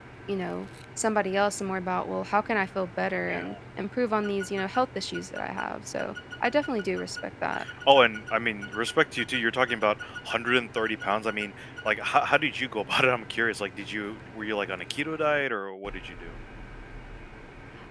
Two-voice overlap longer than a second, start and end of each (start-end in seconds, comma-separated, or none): none